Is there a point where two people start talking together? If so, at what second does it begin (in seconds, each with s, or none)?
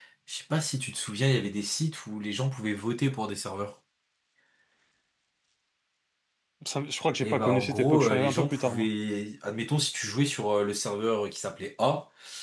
7.2 s